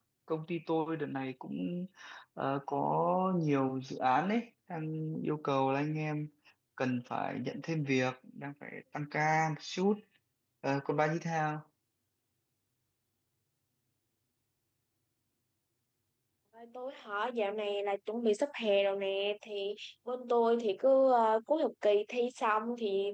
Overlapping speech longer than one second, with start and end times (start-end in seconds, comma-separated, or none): none